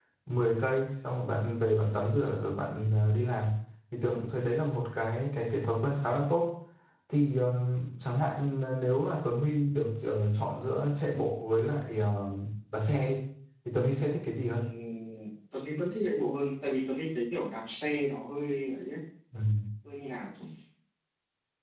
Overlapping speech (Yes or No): No